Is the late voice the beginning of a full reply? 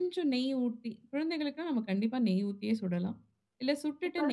No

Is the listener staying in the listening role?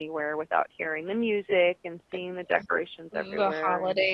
No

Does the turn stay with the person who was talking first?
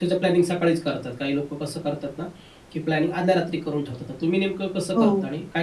No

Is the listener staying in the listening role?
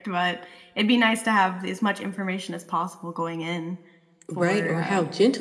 No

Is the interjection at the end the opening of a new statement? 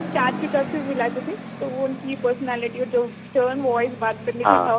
No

